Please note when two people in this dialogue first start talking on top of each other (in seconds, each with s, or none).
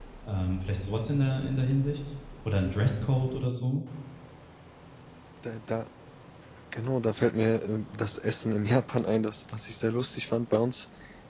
none